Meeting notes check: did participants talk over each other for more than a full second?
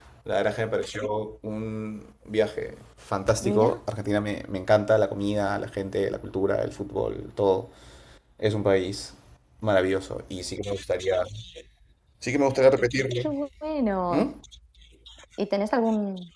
No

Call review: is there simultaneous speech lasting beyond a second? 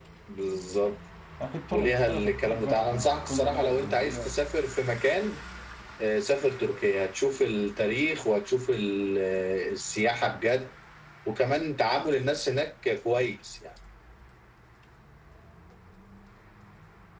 Yes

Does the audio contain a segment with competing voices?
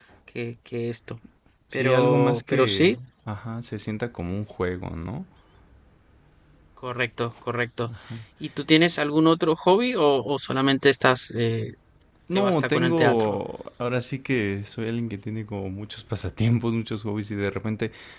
Yes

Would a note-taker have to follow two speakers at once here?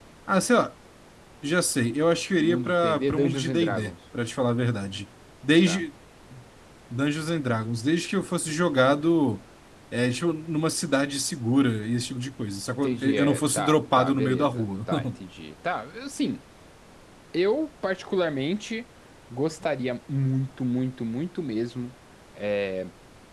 Yes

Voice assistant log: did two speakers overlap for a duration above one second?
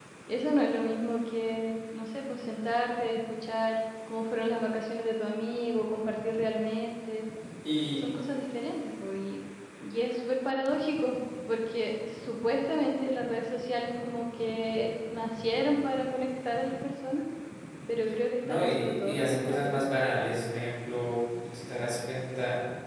Yes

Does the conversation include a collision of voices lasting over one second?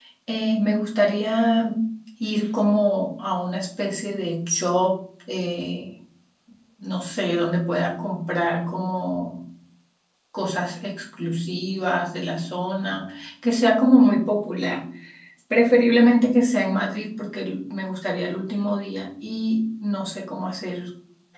No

